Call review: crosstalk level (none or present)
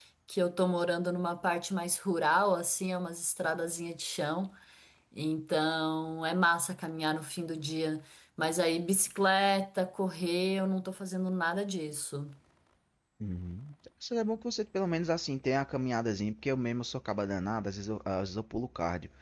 none